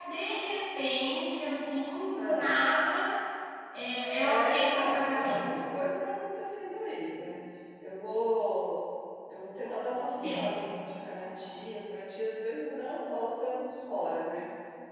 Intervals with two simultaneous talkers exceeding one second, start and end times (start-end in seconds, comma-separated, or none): 4.2-5.5